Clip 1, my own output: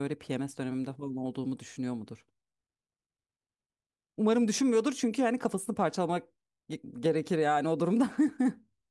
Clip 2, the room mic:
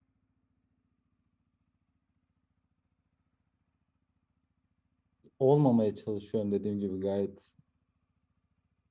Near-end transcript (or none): Olmamaya çalışıyorum dediğim gibi gayet.